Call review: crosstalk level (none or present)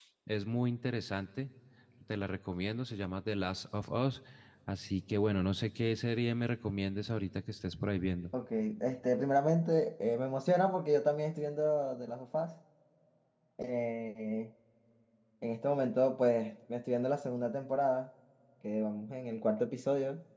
none